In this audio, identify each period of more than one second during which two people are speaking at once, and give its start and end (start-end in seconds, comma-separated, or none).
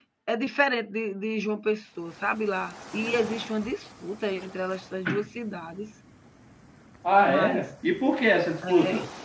none